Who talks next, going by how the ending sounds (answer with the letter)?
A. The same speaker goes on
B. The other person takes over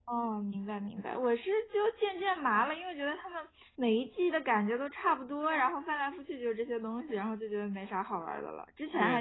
B